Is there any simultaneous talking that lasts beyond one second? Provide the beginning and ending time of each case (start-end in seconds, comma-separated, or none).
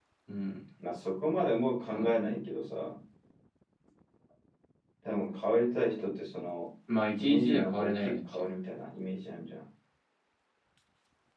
7.2-8.4